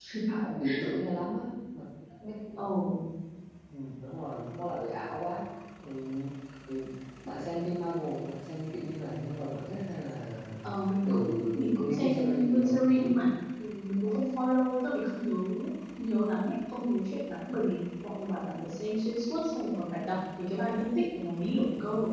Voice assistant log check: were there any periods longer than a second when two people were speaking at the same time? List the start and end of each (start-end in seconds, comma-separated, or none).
11.8-13.2